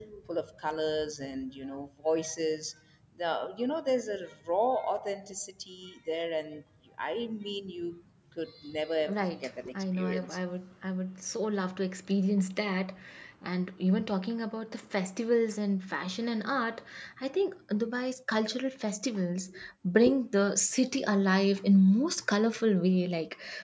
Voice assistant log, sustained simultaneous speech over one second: present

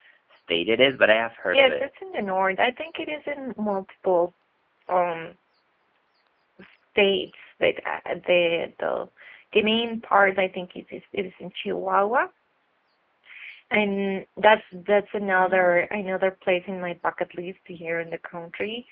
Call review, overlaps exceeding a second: none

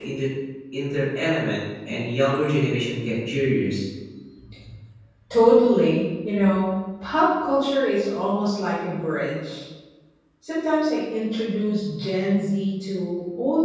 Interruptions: none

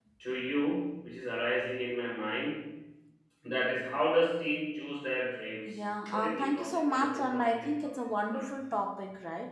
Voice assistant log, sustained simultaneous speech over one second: present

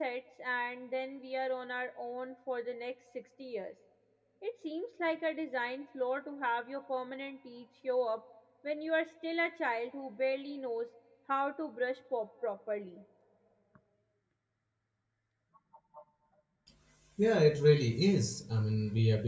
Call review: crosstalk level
none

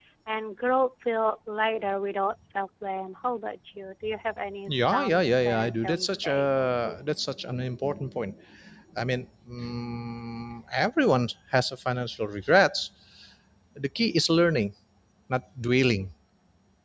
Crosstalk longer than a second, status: present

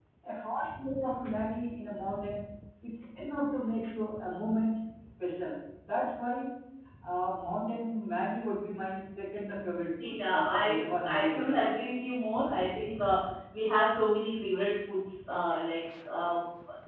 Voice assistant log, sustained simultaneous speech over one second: present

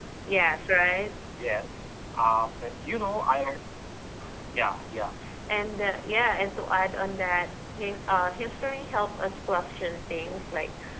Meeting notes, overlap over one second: none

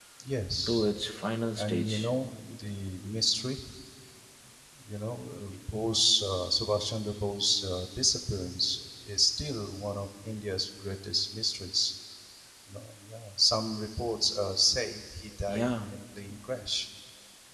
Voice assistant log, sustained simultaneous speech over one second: none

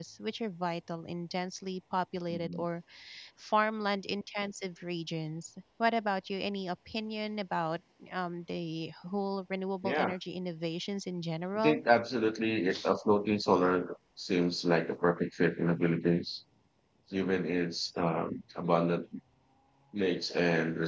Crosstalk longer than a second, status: none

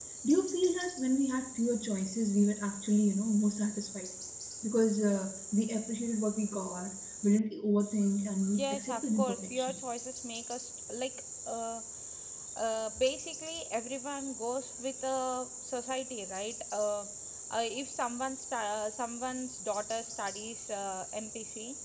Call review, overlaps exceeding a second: present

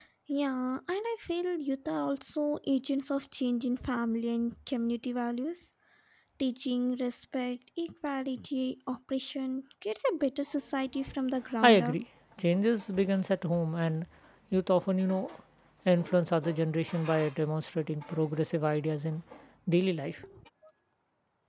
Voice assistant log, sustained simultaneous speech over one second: none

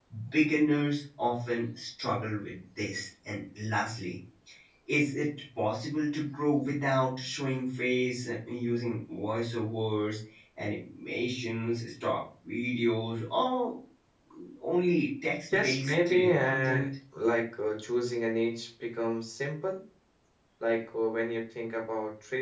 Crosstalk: present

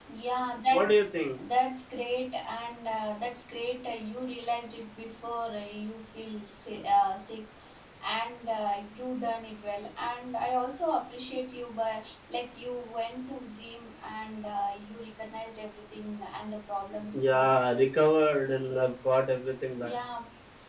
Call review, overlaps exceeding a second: none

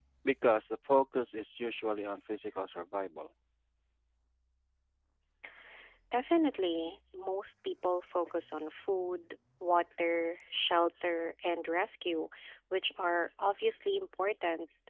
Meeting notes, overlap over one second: none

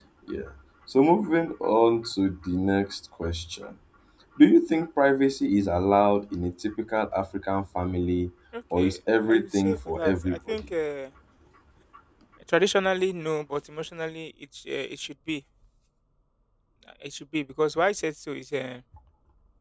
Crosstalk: present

